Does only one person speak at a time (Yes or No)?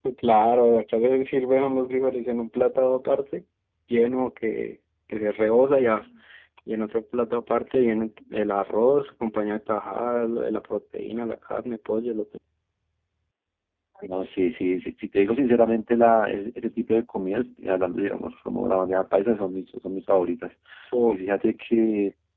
Yes